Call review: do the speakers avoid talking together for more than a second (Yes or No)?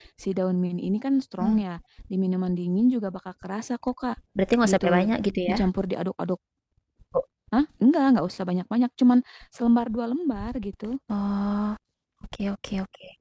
Yes